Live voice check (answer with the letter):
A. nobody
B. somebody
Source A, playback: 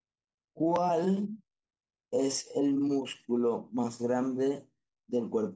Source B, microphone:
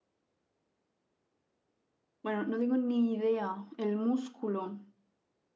B